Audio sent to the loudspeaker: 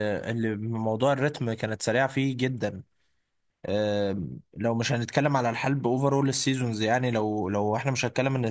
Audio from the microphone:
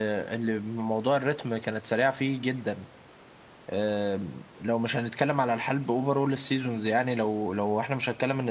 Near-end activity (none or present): none